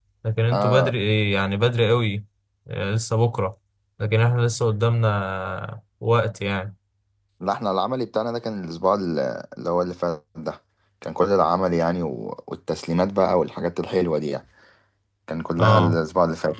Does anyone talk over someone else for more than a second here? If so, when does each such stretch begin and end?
none

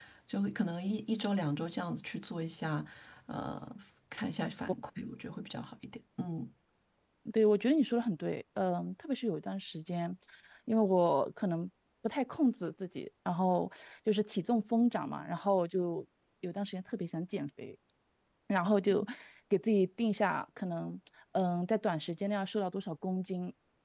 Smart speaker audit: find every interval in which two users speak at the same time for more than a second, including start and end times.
none

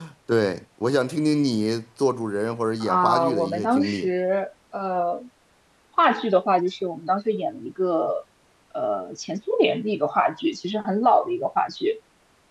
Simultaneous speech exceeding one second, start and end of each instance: 2.8-4.1

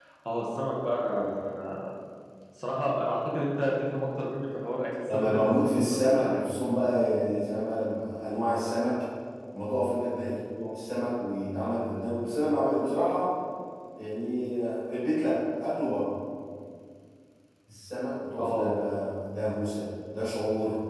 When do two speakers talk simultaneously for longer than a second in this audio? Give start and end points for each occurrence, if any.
5.1-6.4

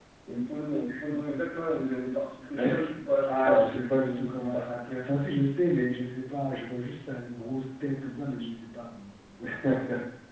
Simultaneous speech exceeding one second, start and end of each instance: 3.2-4.6

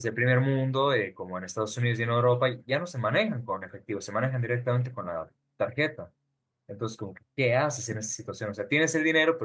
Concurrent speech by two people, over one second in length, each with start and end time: none

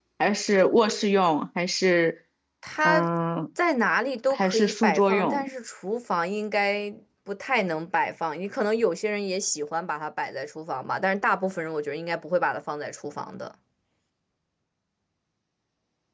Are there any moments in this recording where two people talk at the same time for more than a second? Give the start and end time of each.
4.3-5.5

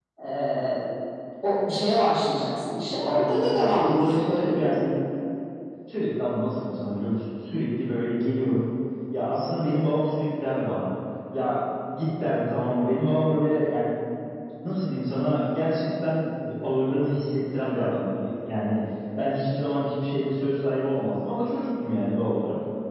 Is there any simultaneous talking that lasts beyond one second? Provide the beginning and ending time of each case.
3.0-4.8

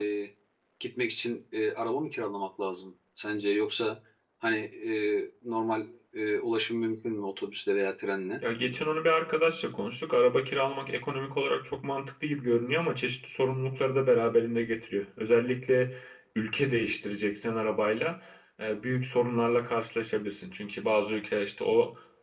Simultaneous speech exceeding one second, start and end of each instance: none

